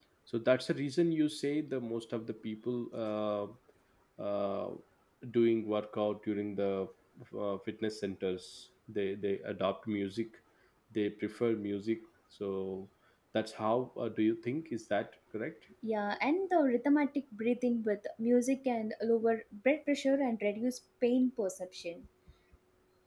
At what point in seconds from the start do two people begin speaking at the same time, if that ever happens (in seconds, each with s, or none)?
none